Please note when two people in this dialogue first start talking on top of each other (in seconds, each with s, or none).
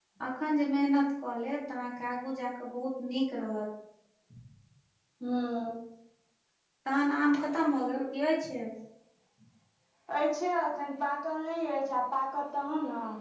none